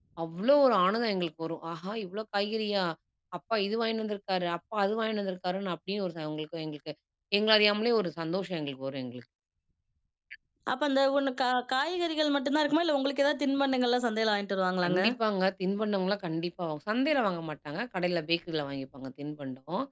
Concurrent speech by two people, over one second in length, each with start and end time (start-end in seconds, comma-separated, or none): none